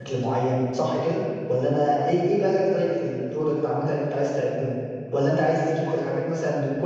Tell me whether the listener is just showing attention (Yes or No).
Yes